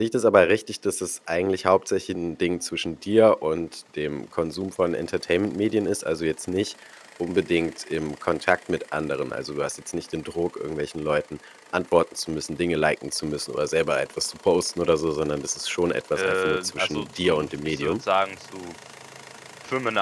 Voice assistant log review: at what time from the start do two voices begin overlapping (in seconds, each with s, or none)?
16.1 s